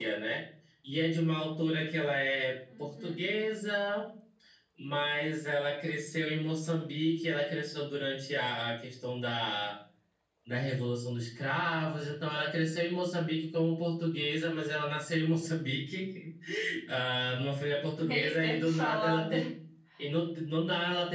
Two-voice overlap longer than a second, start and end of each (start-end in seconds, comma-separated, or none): 18.1-19.4